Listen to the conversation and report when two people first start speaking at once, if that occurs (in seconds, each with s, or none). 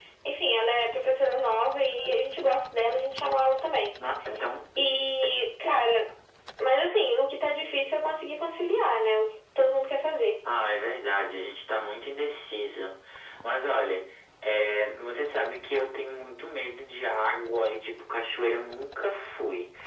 none